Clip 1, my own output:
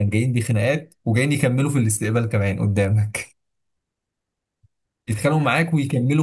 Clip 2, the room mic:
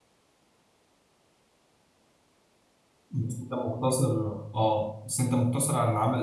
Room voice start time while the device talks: 3.1 s

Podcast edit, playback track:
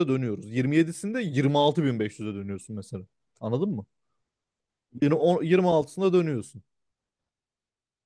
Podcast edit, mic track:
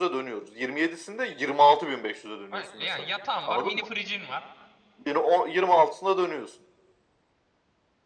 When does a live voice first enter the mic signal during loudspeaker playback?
2.5 s

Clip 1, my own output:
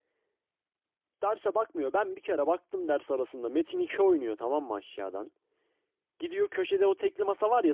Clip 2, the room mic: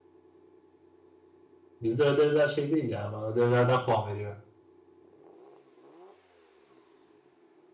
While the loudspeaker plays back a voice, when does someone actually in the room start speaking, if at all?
1.8 s

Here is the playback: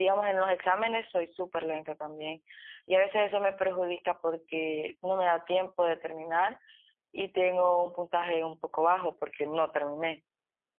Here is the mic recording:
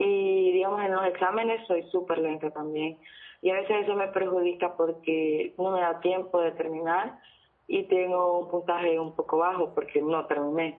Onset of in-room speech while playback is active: none

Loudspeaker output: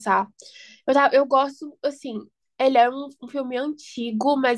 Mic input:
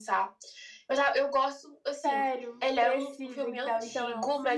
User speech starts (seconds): 2.0 s

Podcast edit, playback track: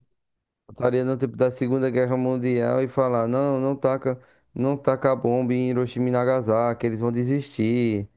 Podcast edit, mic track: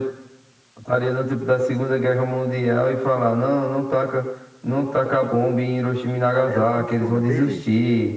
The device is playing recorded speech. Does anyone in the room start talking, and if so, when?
6.5 s

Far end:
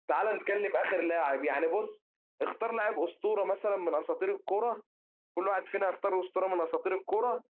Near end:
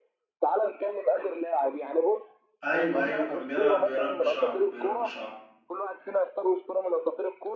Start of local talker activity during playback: 2.6 s

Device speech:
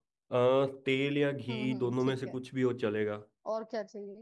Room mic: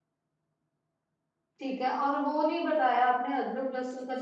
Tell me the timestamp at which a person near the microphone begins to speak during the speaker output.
1.6 s

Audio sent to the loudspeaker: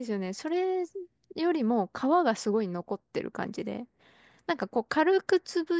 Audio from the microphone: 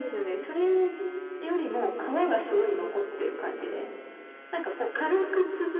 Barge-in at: none

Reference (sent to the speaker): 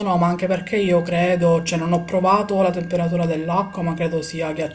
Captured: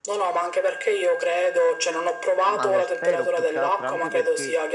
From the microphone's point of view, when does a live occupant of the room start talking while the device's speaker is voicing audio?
2.4 s

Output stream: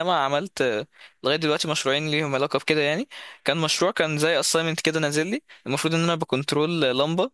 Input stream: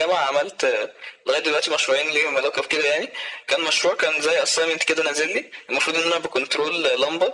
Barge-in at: none

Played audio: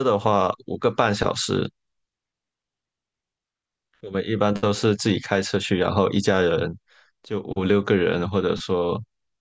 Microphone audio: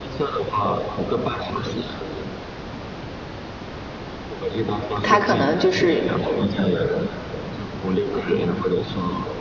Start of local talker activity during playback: 5.0 s

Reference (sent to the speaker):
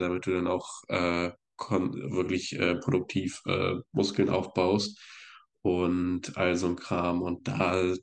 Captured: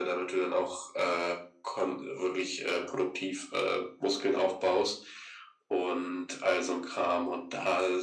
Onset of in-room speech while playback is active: none

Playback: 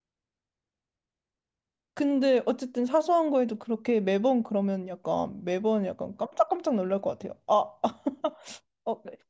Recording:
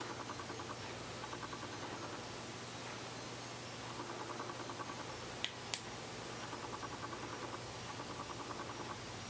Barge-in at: none

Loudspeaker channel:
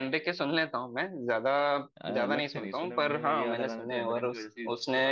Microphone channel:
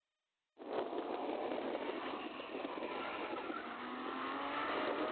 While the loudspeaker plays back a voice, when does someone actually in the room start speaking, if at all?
none

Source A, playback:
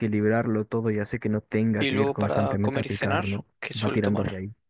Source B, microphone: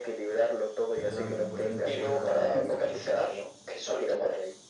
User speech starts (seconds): 0.9 s

